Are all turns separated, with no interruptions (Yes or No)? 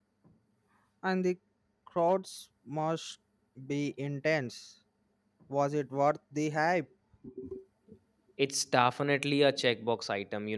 Yes